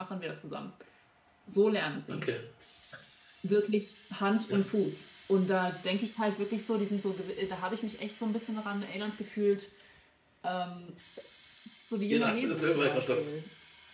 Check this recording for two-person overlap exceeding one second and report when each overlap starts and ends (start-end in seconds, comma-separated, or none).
12.1-13.3